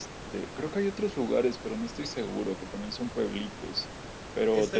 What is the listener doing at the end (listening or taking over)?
taking over